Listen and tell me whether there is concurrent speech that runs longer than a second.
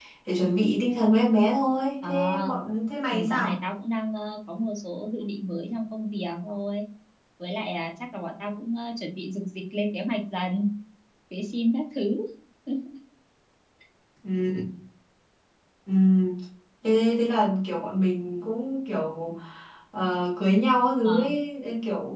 No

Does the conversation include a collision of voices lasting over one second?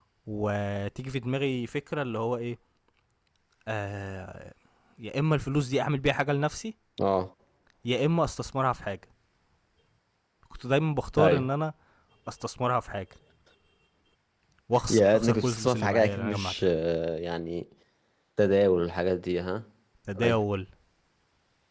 Yes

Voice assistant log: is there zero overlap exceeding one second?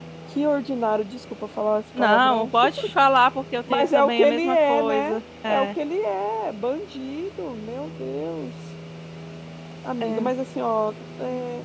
No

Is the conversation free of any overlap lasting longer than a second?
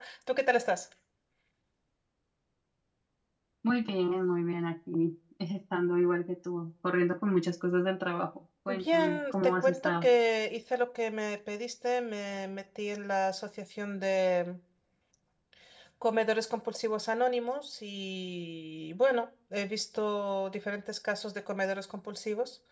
No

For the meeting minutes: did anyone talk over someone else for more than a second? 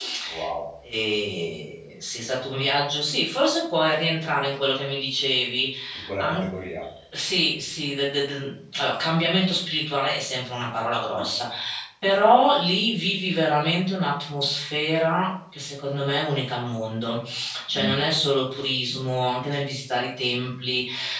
No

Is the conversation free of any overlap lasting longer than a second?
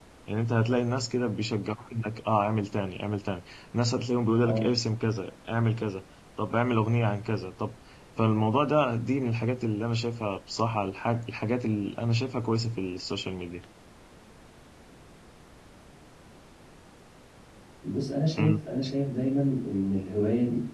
Yes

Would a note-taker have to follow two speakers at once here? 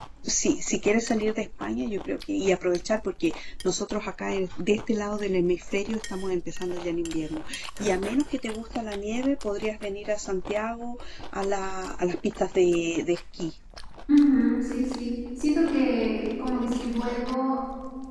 No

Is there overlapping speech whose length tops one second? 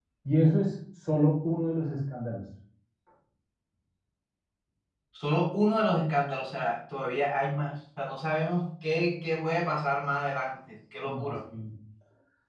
No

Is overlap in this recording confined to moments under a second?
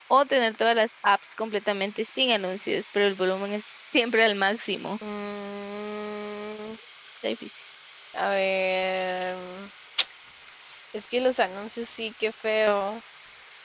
Yes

